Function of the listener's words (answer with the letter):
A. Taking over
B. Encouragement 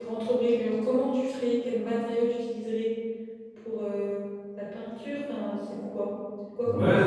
A